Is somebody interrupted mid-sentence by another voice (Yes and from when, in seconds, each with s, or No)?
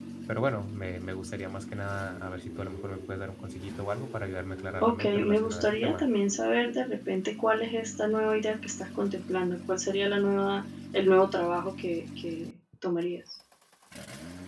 Yes, from 4.8 s